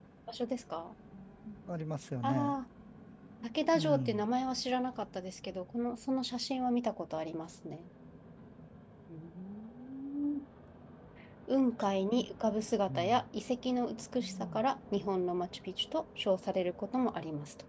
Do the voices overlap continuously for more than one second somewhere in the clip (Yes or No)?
No